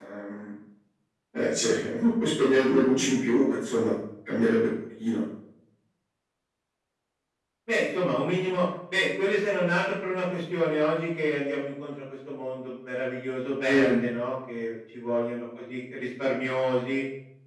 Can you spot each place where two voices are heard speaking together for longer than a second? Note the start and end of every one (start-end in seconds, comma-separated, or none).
none